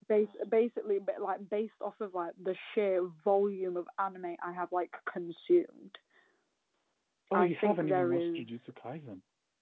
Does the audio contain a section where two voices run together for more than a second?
Yes, from 7.3 s

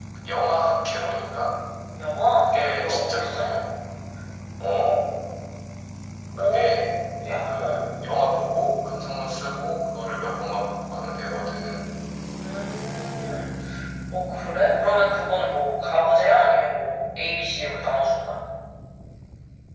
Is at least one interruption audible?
Yes, from 2.4 s

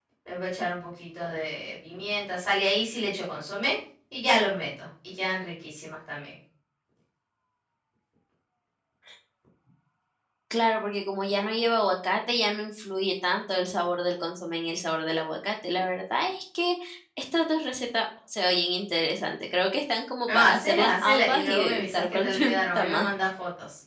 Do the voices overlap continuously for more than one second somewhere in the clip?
Yes, from 20.3 s

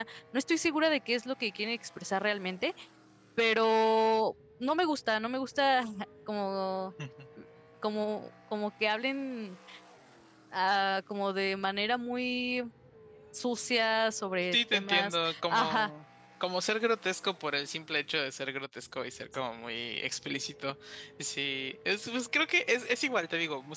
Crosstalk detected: Yes, from 14.5 s

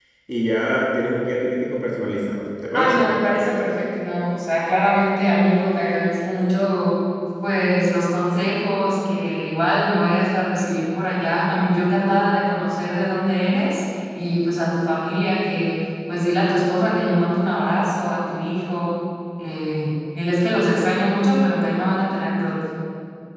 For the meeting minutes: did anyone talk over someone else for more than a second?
No

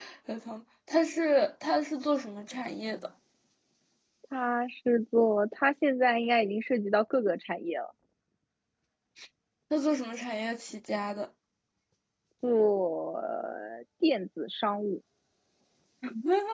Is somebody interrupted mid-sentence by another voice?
No

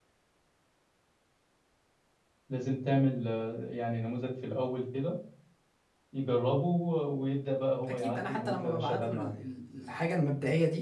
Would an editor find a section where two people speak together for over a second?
Yes, from 7.9 s

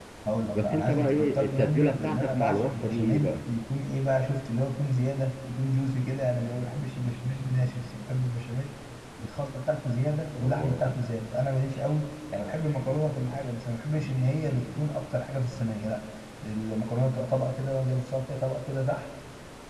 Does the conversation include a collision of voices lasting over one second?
Yes, from 0.5 s

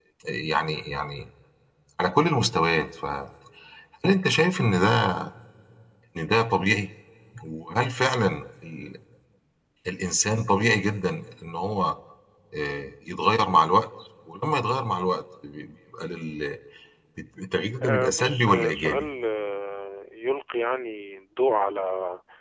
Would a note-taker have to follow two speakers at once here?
Yes, from 17.8 s

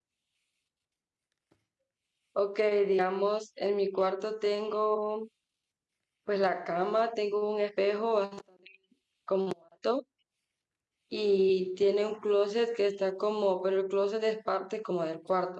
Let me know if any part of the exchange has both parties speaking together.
No

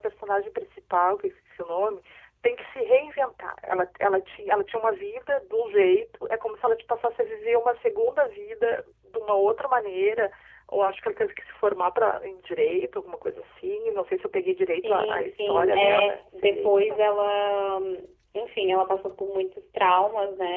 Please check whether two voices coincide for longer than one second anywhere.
Yes, from 14.8 s

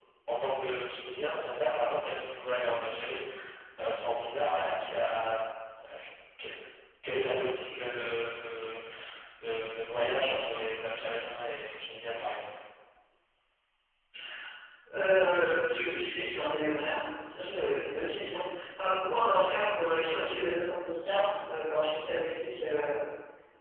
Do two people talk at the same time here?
No

